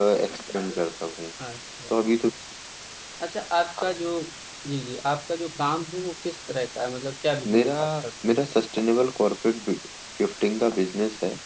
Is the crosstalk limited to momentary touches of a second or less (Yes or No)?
Yes